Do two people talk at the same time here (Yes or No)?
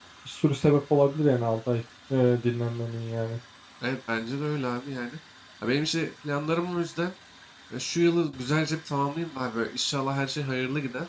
No